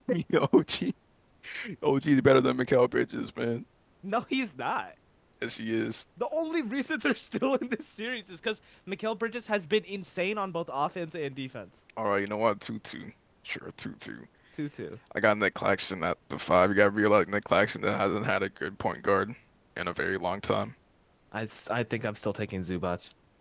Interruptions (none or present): none